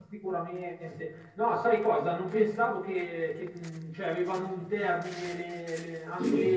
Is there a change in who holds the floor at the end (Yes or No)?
No